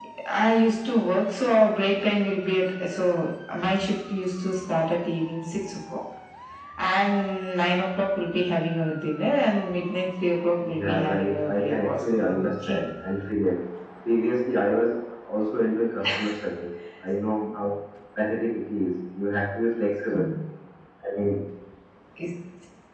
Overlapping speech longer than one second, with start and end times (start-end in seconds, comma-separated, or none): 10.8-12.8